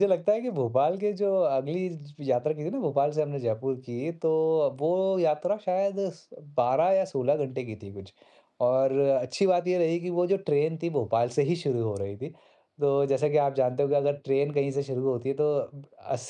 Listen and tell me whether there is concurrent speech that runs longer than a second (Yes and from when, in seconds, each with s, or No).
No